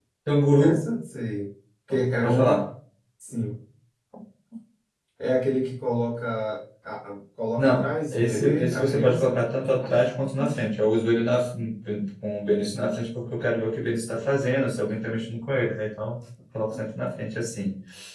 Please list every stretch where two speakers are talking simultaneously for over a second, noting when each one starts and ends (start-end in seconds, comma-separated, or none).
7.6-9.4